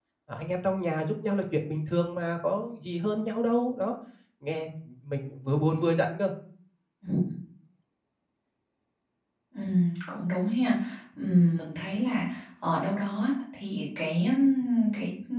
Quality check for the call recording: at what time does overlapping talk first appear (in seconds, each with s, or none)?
none